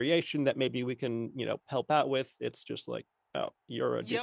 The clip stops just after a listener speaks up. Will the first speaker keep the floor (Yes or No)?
No